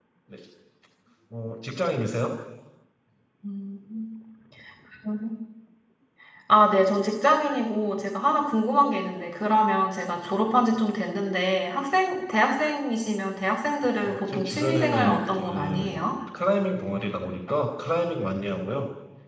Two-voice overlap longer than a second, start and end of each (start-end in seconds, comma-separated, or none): 14.0-16.0